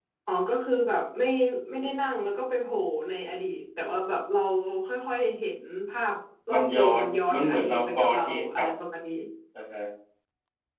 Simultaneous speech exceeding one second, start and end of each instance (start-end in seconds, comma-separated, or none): 6.5-8.7